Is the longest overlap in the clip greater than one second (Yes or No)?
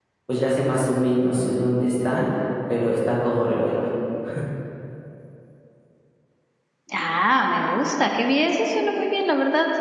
No